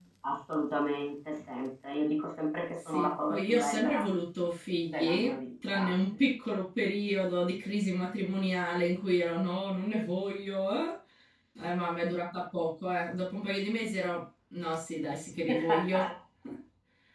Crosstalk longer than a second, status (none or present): present